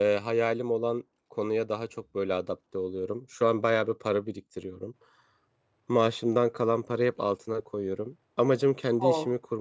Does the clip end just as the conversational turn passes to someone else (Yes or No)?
No